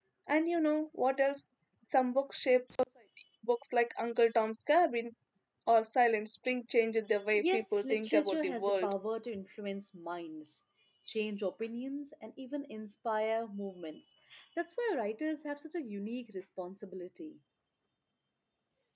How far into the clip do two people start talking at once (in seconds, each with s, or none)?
7.3 s